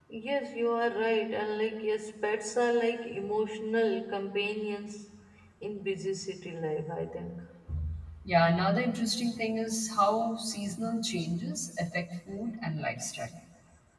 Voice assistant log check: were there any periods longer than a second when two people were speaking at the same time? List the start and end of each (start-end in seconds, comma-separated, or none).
none